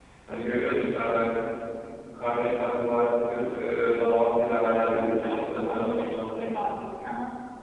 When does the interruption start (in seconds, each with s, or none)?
4.8 s